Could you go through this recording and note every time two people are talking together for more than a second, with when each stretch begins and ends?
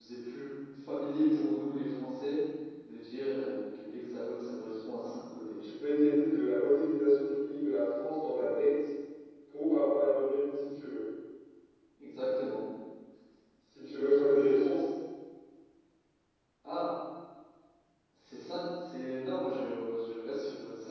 none

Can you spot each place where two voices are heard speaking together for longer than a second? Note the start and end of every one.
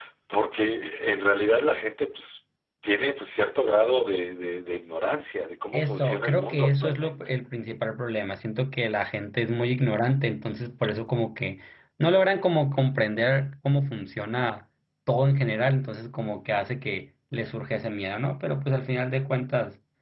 5.7-7.2

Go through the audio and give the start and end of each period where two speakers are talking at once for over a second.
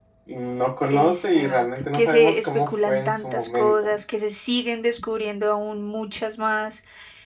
0.9-3.9

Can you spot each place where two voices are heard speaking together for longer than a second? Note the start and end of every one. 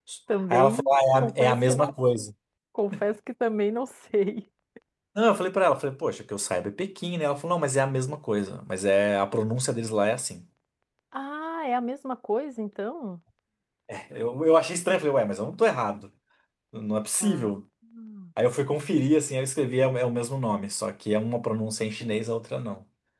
0.5-1.9

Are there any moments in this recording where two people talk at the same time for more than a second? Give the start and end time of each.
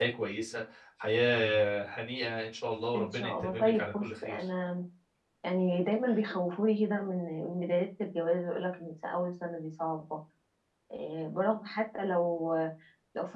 2.9-4.4

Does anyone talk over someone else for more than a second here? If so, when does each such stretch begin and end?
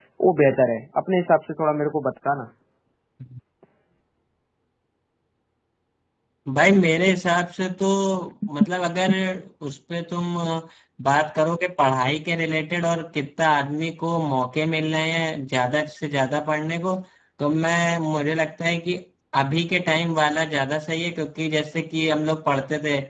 none

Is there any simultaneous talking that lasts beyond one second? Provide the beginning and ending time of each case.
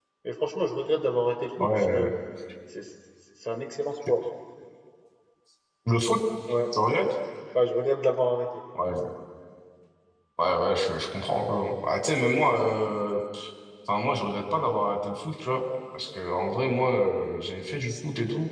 none

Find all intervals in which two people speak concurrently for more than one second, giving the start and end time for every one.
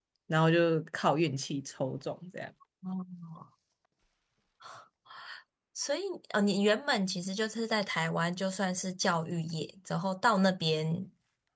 none

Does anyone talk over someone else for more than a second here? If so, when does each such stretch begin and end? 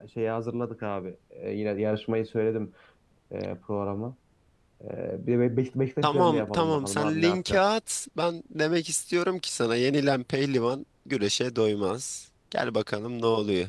6.0-7.6

